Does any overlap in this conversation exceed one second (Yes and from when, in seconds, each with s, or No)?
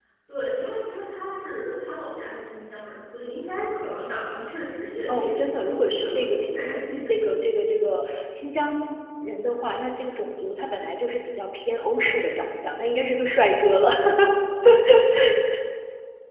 Yes, from 5.1 s